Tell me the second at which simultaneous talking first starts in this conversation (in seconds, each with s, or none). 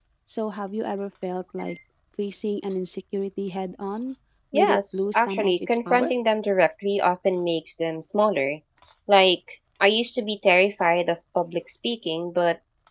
4.5 s